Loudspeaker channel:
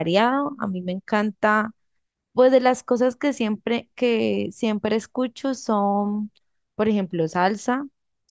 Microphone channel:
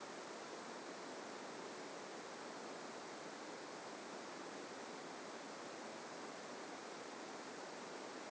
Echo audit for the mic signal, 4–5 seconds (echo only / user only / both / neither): neither